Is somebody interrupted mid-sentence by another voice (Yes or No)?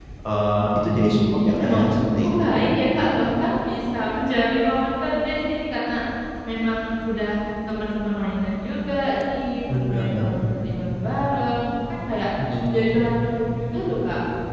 Yes